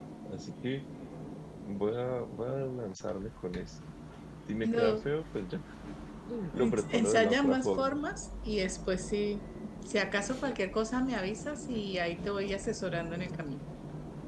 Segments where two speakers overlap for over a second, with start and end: 6.6-8.0

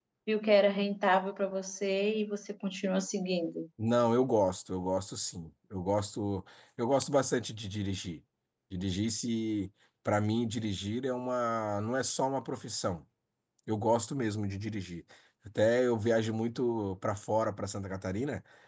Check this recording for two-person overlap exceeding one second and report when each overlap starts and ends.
none

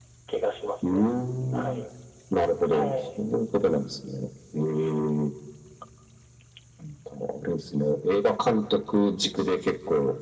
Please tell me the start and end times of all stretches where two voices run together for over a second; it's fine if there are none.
none

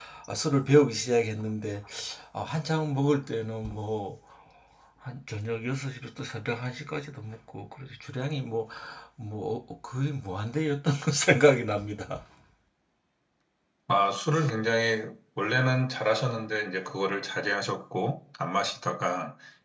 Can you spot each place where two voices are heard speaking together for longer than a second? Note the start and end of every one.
none

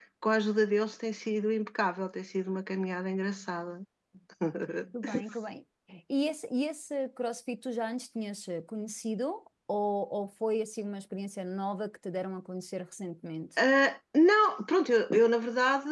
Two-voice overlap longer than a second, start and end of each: none

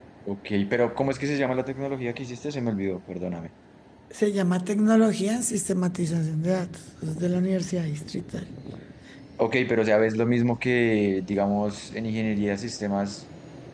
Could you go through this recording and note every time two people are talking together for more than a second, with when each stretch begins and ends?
none

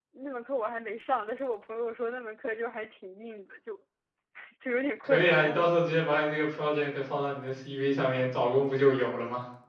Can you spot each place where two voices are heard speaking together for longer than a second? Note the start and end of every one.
none

